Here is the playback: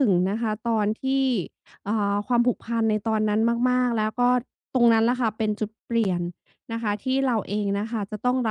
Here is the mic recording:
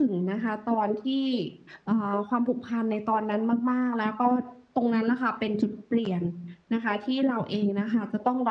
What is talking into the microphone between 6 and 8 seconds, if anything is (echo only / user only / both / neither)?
echo only